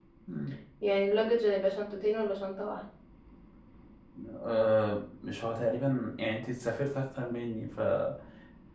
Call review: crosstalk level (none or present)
none